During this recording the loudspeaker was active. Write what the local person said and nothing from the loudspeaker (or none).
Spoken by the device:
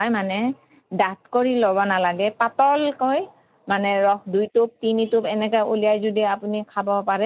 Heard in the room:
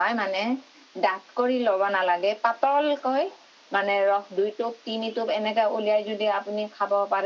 none